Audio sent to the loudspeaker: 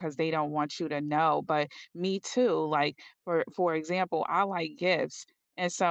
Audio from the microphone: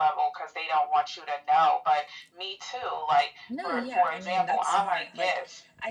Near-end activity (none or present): present